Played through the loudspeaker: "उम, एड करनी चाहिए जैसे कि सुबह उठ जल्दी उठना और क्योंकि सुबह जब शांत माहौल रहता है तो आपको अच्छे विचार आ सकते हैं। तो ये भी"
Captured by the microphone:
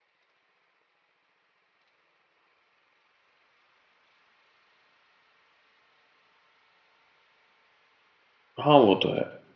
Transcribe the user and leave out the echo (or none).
हाँ, वो तो है।